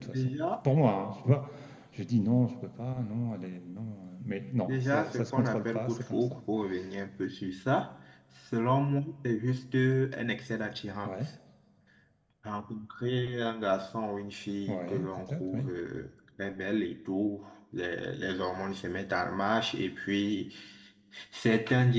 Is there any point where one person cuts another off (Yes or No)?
Yes